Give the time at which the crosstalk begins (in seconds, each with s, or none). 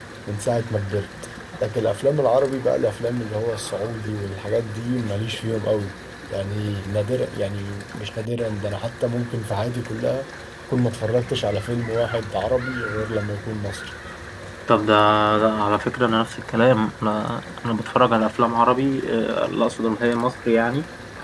none